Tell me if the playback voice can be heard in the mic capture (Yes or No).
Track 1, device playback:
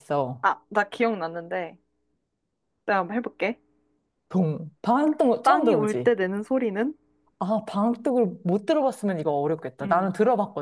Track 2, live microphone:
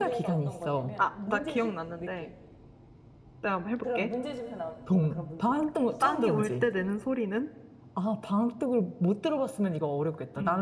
Yes